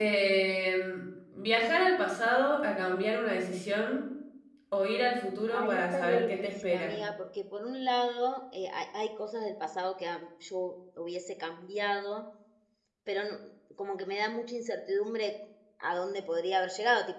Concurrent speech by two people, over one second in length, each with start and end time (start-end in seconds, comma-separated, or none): 5.5-6.9